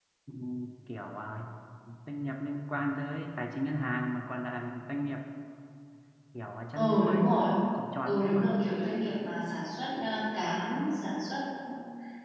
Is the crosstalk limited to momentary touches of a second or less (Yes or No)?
Yes